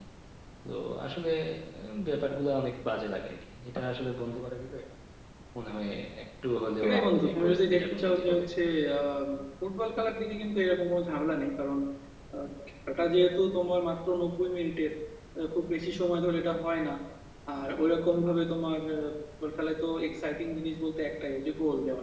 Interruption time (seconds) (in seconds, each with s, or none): 6.8 s